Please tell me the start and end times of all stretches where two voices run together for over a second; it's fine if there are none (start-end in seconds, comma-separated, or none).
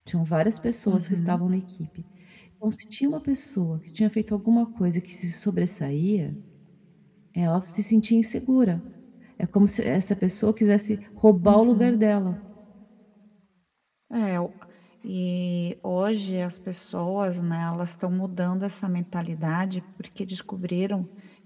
none